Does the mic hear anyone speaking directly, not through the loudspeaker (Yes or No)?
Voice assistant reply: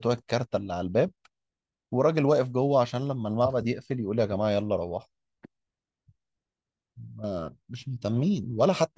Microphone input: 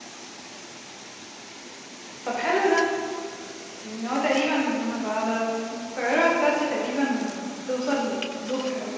Yes